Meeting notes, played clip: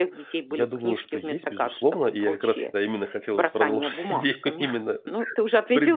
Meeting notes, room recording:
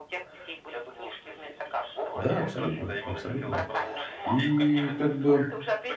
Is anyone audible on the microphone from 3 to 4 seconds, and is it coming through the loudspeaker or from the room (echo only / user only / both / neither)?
both